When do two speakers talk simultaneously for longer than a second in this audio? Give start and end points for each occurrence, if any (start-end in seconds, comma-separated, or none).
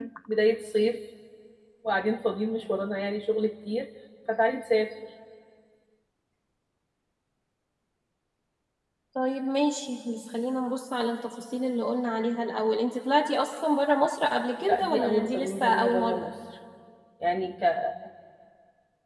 14.7-16.2